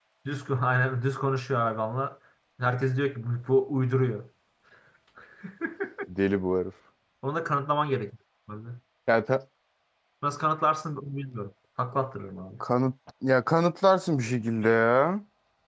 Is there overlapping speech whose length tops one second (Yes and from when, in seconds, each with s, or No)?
No